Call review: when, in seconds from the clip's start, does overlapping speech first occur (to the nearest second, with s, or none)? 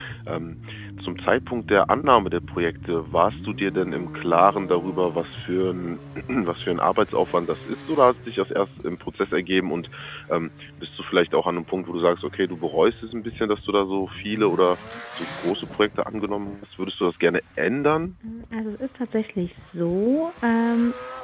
none